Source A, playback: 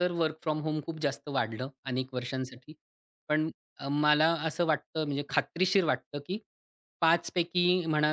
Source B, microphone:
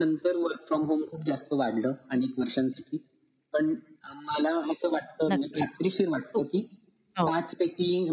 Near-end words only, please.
नक्कीच. हो, हो.

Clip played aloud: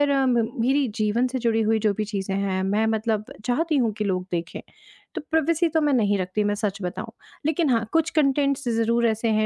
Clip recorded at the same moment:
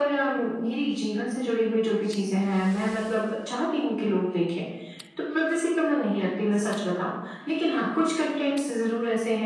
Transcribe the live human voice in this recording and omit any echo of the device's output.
none

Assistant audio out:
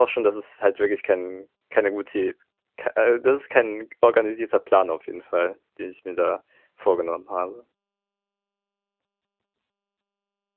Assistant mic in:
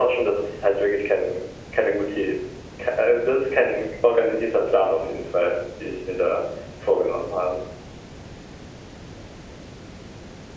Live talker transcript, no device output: none

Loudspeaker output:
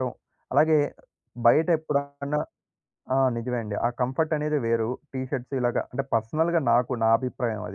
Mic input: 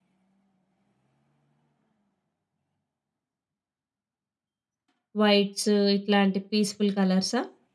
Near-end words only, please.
వైట్స్ ఇట్లాంటి పీస్‌ఫుల్ కలర్సా?

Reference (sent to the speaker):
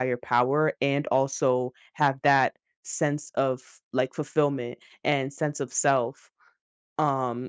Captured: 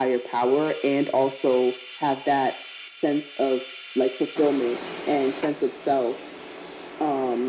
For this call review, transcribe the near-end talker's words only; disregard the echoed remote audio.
none

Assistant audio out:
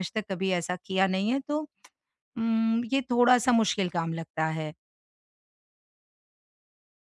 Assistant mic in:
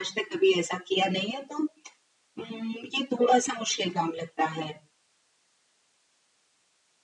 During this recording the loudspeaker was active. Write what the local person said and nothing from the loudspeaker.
none

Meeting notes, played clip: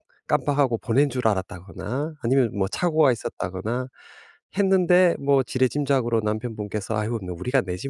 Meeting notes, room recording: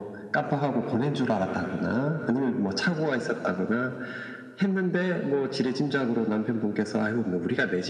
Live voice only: none

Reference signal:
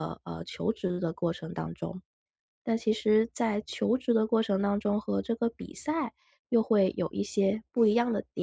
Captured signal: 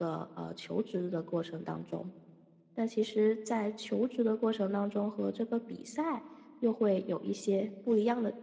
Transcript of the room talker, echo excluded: none

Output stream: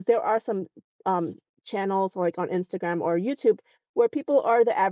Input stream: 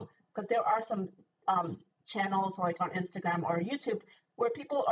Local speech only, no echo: none

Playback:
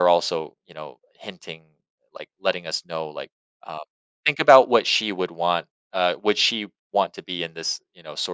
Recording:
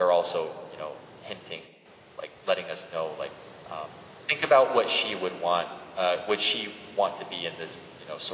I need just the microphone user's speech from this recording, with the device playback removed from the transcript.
none

